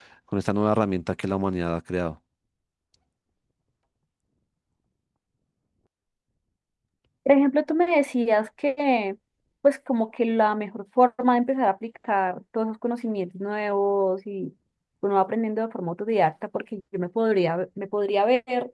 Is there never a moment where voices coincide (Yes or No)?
Yes